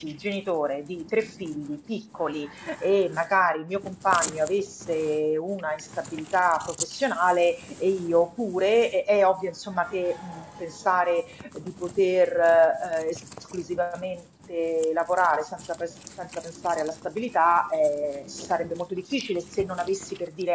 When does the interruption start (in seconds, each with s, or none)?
none